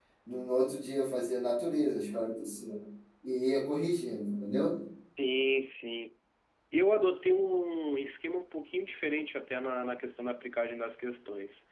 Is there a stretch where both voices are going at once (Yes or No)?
No